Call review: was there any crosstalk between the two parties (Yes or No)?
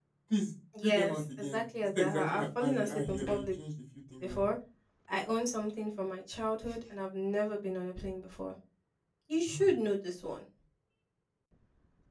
Yes